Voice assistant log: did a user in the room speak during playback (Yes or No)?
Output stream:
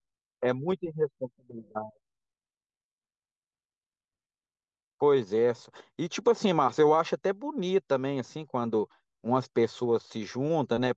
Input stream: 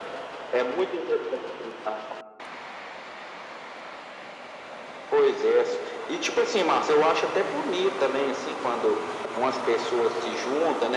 No